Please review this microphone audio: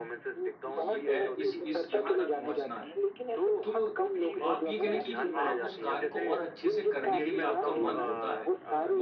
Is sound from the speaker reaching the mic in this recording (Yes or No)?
Yes